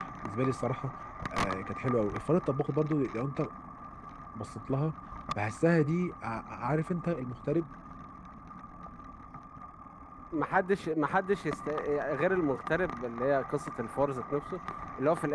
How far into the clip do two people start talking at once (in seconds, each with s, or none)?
none